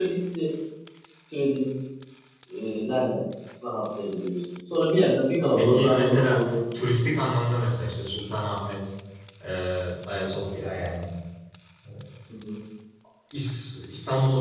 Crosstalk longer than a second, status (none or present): present